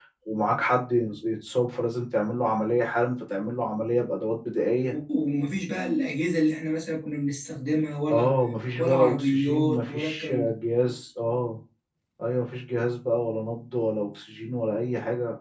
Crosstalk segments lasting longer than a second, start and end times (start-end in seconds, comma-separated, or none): 8.8-10.5